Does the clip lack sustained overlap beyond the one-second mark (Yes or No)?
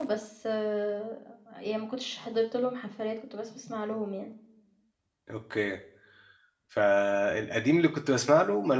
Yes